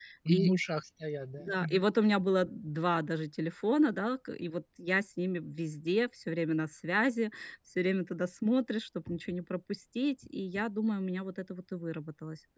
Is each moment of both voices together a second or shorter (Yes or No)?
Yes